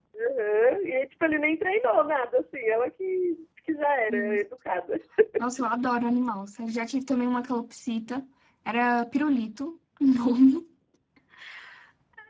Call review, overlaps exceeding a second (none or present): none